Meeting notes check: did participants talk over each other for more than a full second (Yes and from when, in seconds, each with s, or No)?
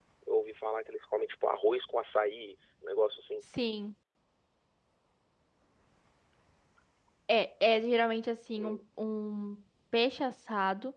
No